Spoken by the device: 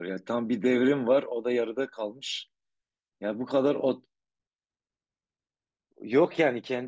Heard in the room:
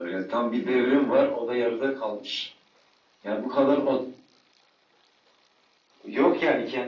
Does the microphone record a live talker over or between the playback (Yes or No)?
No